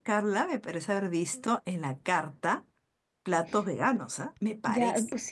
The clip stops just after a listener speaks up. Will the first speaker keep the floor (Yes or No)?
No